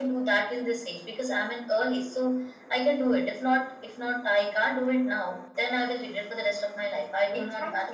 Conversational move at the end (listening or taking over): taking over